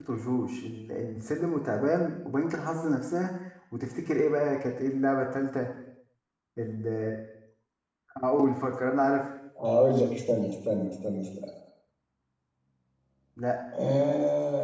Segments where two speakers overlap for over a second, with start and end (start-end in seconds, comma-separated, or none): none